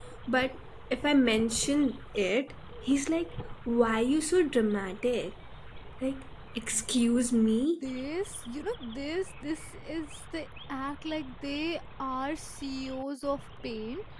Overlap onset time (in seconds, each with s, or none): none